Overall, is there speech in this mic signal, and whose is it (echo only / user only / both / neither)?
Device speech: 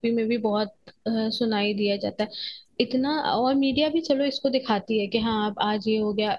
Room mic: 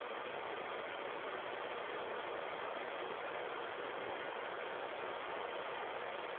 neither